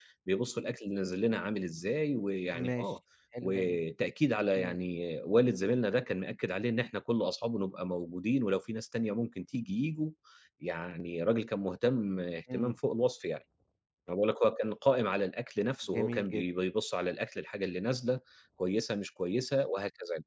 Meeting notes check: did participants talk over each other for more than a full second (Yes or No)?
No